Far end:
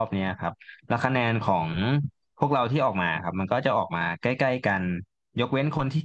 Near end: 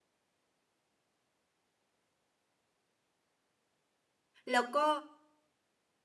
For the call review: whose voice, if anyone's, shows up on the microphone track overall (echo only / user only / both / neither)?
user only